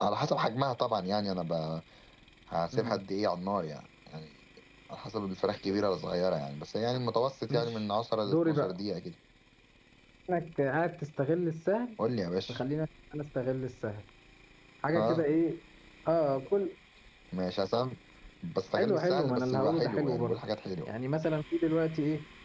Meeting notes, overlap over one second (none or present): present